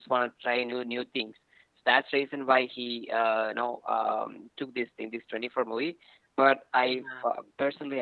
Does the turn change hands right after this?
No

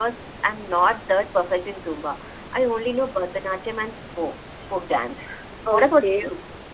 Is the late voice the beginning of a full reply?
Yes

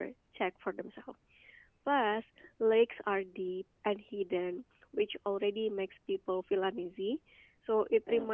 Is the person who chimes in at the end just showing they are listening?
Yes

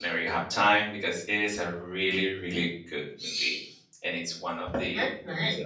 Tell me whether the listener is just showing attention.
Yes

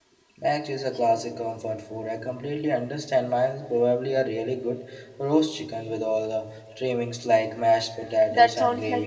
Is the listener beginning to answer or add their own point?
Yes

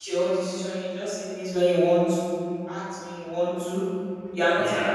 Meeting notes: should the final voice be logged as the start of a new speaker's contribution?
No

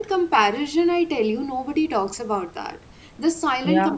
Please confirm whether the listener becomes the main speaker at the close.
No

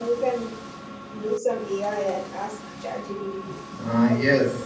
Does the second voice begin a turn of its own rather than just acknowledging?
Yes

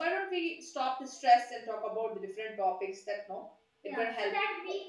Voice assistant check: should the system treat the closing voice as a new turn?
Yes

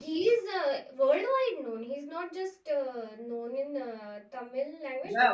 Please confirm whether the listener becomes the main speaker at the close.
Yes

